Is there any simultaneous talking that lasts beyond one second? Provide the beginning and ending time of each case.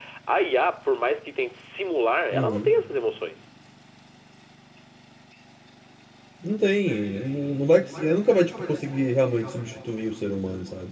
none

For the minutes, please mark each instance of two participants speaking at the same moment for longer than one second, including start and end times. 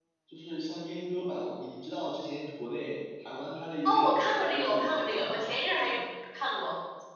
3.9-5.9

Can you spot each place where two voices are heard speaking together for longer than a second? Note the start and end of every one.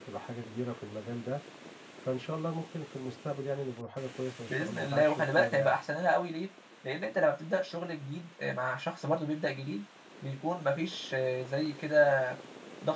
4.5-5.8

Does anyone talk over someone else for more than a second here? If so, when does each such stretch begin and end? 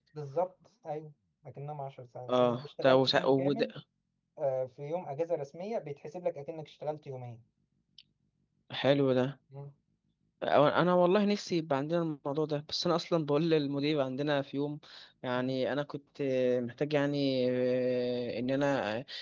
2.3-3.7

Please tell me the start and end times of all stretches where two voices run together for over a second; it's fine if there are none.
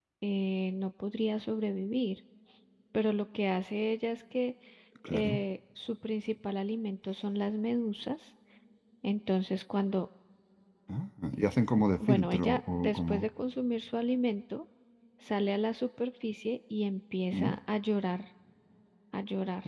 12.0-13.3

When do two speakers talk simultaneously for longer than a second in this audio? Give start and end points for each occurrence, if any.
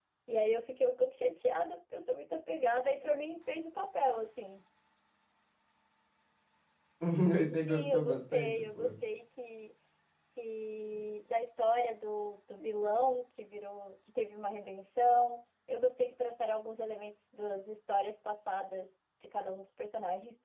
7.5-8.9

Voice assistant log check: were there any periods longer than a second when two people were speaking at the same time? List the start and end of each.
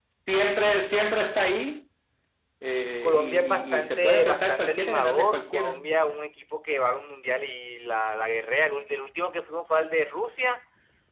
3.0-5.8

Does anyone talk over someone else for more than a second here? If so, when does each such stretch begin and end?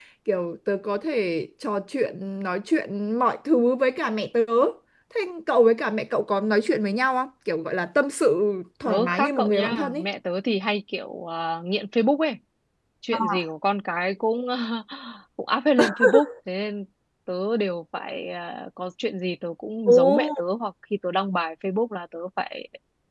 8.8-10.0

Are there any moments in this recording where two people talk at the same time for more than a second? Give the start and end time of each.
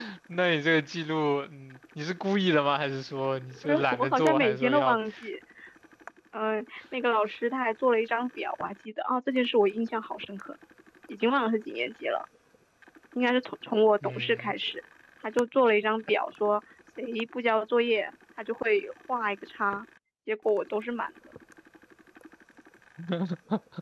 3.6-5.0

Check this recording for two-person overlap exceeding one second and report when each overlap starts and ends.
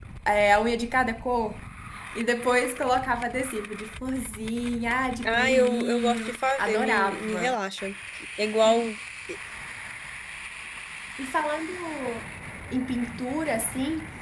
5.2-7.5

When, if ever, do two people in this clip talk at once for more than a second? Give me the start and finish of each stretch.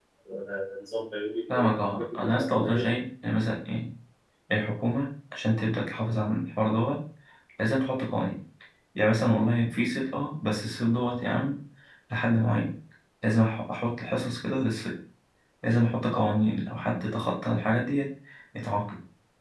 1.5-2.9

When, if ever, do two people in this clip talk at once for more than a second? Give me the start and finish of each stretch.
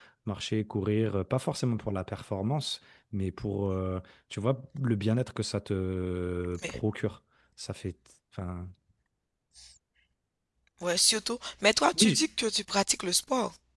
none

